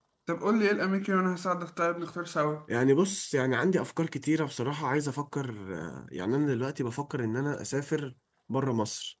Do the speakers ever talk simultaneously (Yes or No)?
No